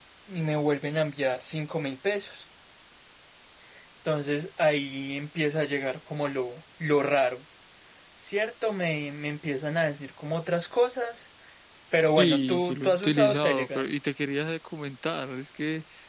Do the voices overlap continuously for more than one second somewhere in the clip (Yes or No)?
Yes